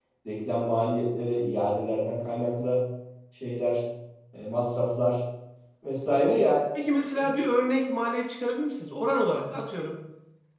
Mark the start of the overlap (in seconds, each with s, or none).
none